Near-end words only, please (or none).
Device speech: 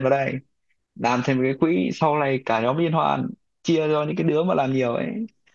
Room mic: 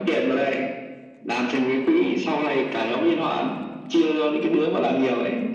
none